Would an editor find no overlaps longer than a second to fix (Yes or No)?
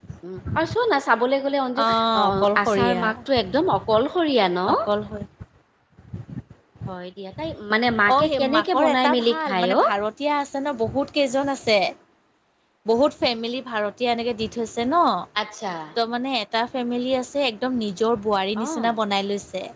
No